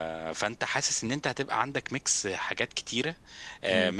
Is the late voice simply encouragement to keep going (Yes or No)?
Yes